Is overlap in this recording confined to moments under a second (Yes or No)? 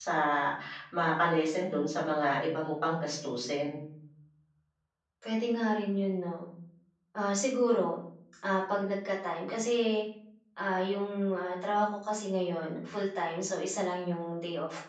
Yes